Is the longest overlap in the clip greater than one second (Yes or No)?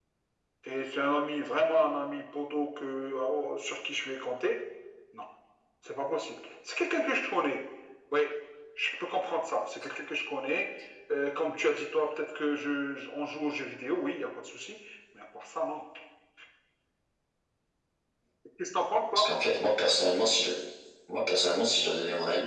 No